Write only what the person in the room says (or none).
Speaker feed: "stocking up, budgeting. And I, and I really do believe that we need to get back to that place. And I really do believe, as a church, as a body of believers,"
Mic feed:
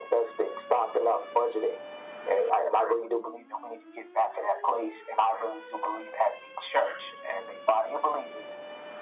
none